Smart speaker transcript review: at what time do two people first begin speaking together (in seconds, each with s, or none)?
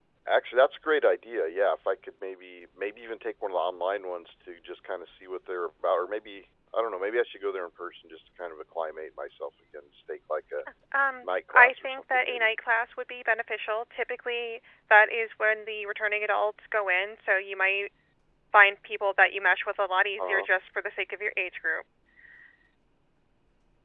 11.2 s